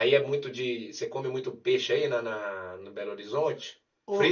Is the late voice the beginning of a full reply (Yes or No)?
Yes